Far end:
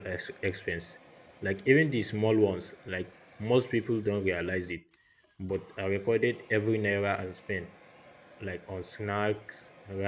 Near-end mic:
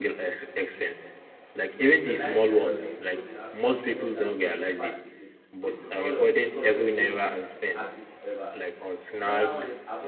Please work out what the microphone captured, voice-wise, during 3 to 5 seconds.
both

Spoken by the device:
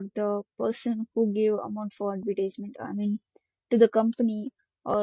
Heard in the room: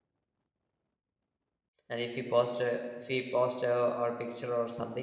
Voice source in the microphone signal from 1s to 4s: user only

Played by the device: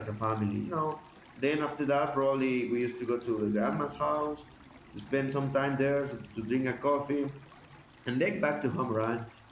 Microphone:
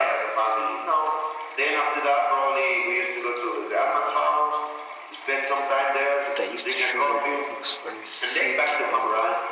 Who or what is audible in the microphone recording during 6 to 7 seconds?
both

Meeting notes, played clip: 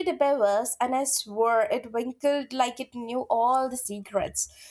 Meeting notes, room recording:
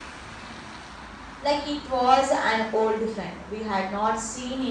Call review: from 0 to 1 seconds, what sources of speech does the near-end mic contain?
neither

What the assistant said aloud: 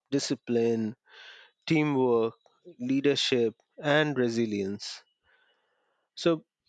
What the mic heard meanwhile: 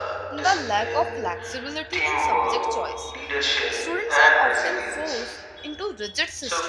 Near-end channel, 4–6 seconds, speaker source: both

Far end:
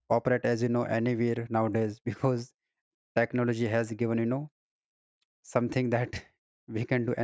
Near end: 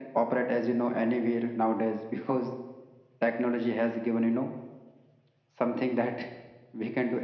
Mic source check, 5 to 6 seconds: echo only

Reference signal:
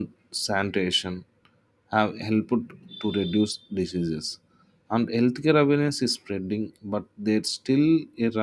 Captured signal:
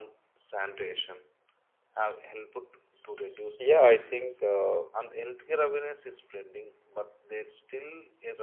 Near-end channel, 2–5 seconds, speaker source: both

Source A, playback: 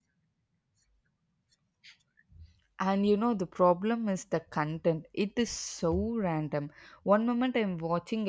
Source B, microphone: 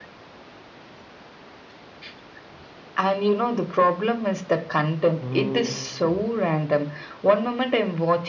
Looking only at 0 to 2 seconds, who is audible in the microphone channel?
neither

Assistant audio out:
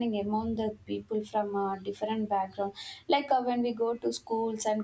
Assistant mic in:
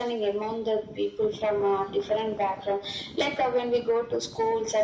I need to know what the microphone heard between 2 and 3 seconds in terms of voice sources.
echo only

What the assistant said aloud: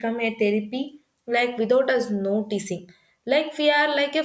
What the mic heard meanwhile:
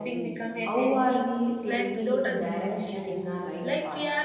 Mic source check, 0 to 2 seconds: both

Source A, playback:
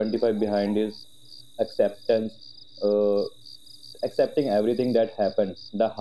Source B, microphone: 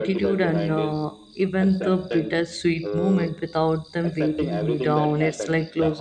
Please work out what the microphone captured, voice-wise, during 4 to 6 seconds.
both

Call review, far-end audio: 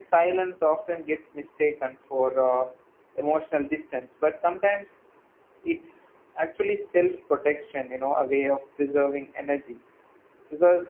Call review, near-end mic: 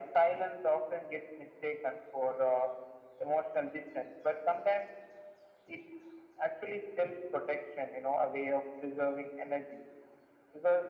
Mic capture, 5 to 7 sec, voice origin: echo only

